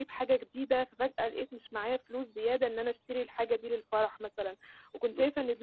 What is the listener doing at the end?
listening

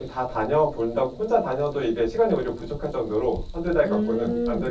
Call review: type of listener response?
taking over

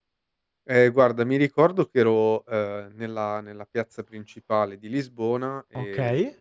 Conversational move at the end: listening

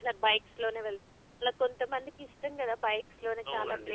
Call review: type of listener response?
taking over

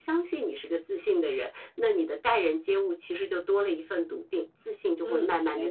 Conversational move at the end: taking over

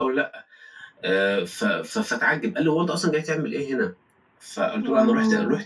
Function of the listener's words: listening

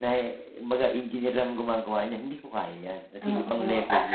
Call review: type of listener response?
taking over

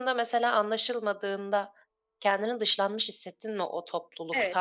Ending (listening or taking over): taking over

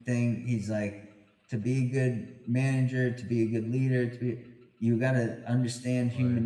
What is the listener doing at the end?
listening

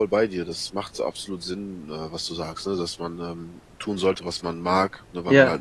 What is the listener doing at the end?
listening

